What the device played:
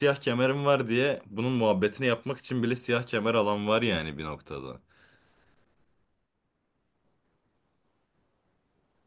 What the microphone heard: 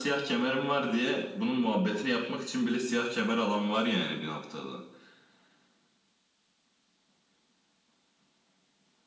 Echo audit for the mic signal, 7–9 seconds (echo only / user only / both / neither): neither